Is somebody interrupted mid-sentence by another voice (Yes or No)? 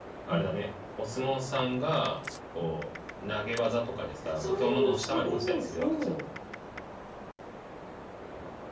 Yes